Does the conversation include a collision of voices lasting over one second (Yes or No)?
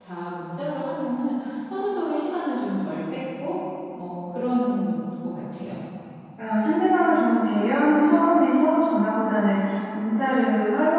No